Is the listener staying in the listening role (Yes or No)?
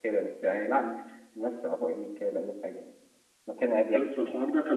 No